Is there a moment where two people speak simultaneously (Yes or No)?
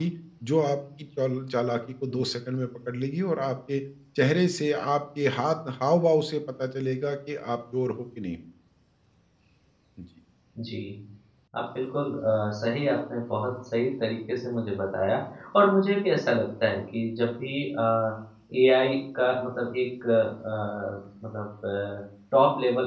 No